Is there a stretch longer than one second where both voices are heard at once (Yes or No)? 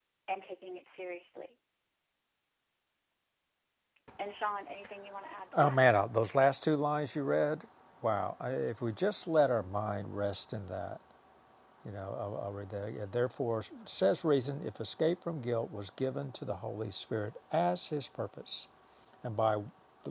No